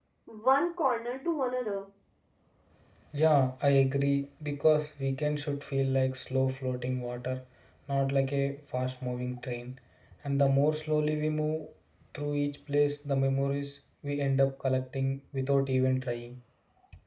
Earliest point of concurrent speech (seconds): none

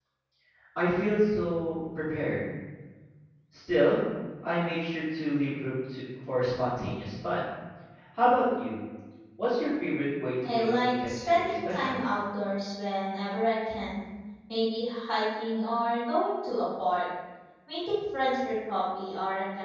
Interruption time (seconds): 10.4 s

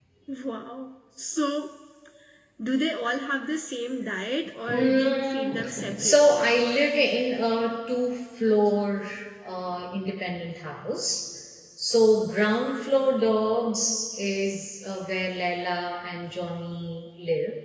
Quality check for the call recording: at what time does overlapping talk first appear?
4.7 s

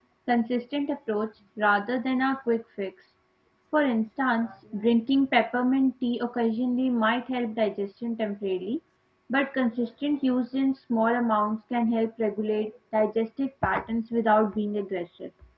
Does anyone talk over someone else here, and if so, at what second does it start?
none

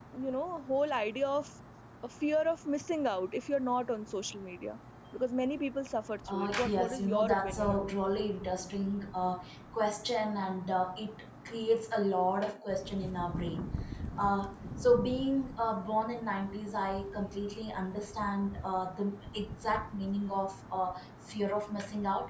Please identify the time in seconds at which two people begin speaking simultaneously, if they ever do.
6.3 s

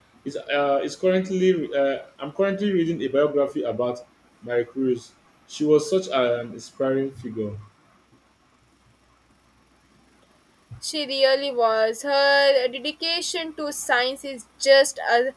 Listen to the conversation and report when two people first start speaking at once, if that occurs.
none

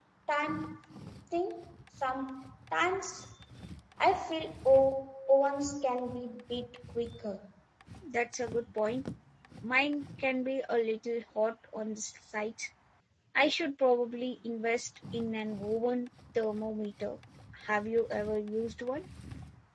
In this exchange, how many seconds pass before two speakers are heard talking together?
none

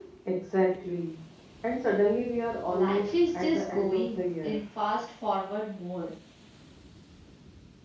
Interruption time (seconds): 2.7 s

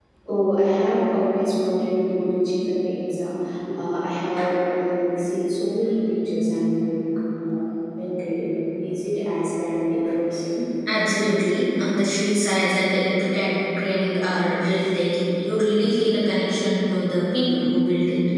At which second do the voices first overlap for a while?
none

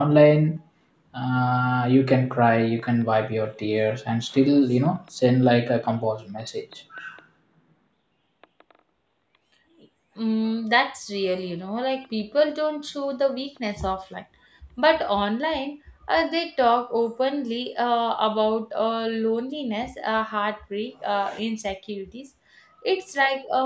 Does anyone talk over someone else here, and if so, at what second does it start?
none

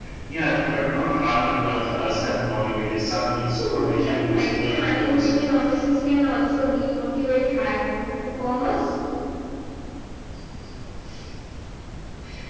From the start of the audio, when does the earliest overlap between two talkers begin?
3.6 s

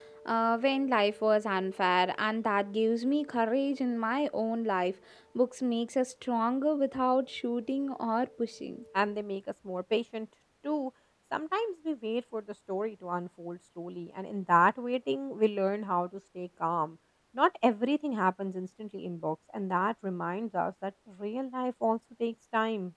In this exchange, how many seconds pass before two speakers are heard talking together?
none

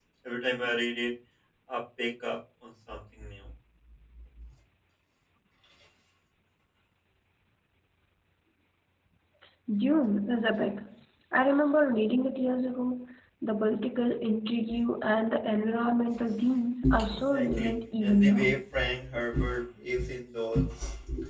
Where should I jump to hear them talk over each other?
17.1 s

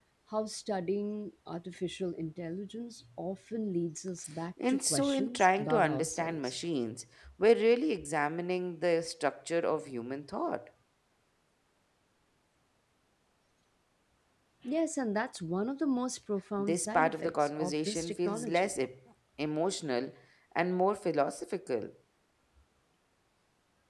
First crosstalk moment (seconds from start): 4.7 s

